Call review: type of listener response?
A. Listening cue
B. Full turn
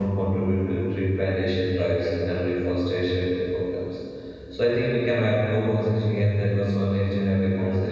A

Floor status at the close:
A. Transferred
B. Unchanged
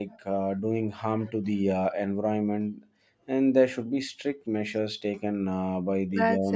A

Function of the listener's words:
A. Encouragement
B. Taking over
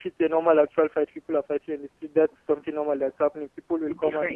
A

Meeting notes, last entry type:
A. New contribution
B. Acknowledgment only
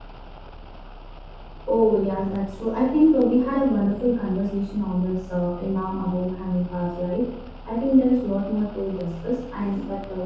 B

